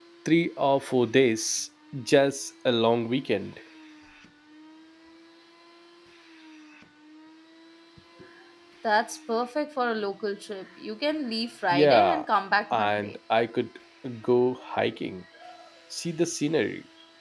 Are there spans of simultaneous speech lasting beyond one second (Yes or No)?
No